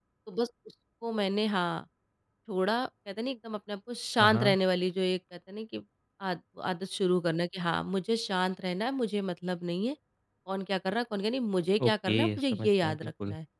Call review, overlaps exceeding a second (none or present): present